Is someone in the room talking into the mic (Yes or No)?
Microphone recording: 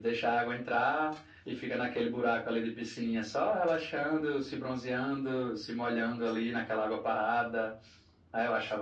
No